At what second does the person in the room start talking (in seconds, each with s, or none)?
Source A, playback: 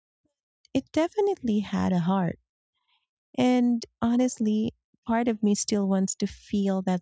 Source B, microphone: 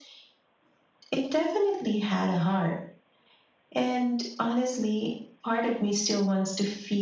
none